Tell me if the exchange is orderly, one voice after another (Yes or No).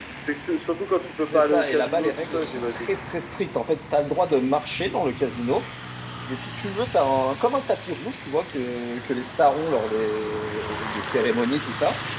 No